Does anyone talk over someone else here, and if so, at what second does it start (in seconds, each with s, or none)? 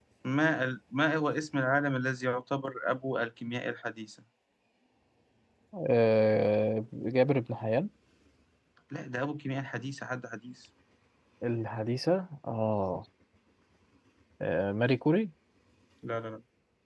none